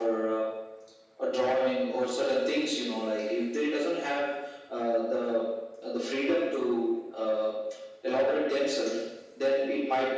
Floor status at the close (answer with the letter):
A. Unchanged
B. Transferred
A